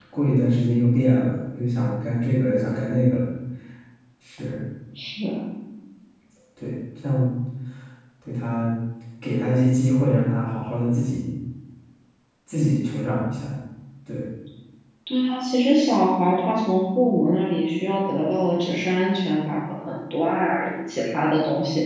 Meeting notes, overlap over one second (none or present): none